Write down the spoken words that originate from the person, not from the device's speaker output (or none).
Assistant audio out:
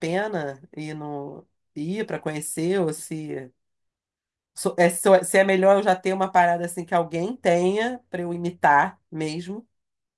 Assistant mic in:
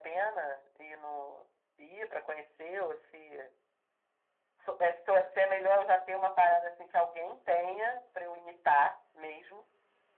none